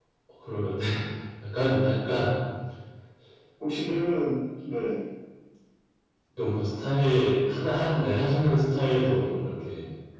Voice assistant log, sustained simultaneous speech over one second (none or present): none